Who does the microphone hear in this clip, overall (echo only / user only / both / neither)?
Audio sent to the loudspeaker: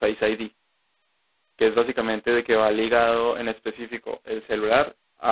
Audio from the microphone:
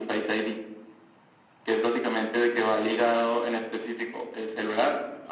echo only